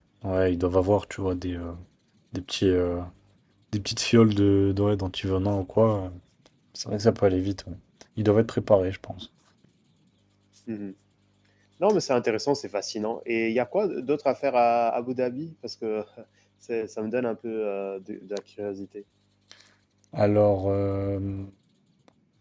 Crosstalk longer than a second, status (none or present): none